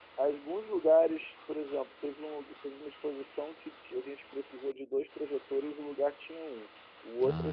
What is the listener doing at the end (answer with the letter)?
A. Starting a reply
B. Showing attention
B